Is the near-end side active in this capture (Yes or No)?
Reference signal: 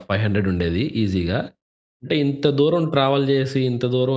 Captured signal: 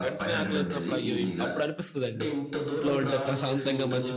Yes